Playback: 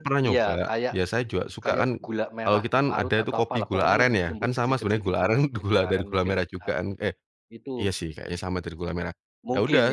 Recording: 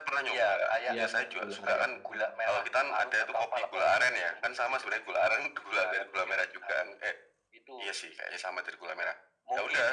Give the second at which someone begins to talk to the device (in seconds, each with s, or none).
0.9 s